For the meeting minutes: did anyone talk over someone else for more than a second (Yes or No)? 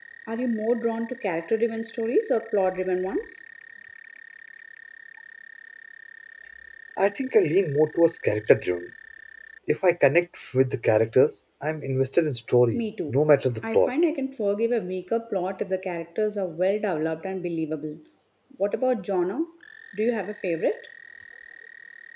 No